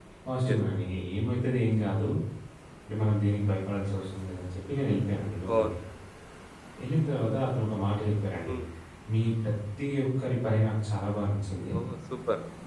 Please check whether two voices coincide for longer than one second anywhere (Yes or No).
No